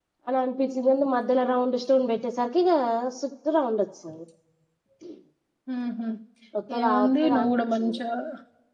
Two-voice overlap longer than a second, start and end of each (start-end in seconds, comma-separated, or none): 6.8-8.0